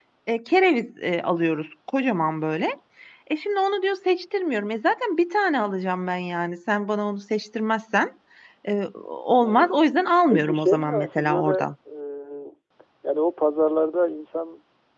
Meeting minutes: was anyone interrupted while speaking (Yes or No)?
Yes